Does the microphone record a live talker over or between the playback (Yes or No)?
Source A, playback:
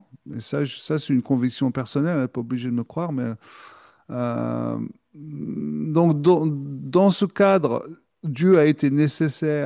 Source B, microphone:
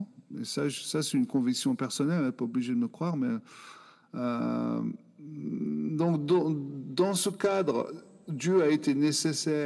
No